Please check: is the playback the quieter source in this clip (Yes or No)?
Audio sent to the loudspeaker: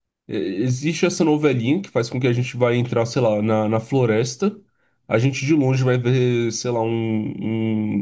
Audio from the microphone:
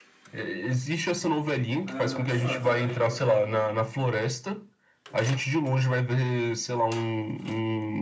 No